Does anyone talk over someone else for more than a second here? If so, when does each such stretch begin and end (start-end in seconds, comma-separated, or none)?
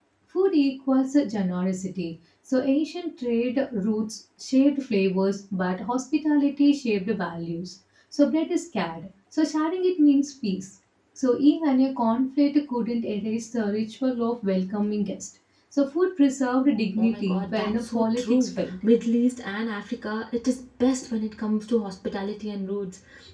17.0-18.8